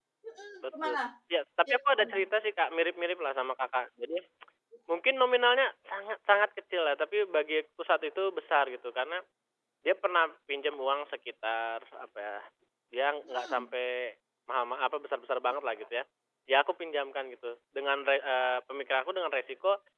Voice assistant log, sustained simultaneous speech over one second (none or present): none